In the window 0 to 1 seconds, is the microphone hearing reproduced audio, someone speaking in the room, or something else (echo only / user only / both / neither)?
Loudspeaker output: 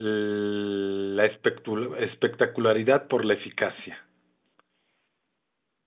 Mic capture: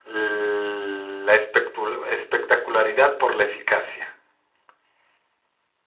echo only